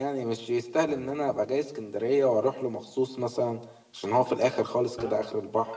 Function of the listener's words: taking over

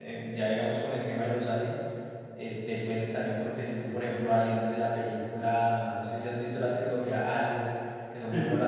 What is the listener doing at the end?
listening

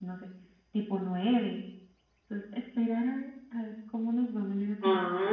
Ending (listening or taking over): taking over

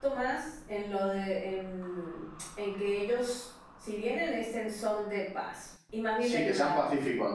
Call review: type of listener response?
taking over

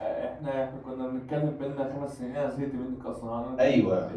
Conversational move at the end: taking over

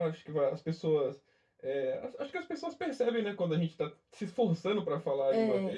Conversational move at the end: listening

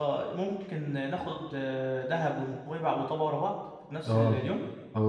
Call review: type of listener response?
taking over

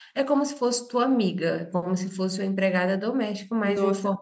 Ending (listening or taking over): taking over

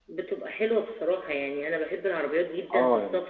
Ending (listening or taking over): listening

